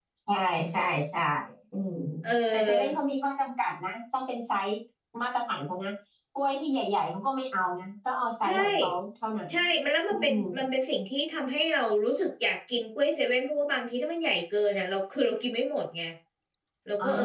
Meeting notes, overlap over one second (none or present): none